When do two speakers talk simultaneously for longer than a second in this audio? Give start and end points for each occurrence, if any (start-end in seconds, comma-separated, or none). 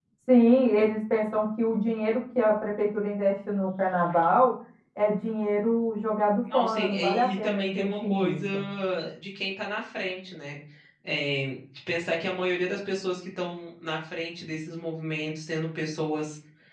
6.5-8.4